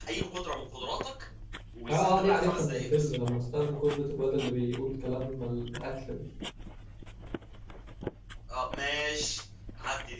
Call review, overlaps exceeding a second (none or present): present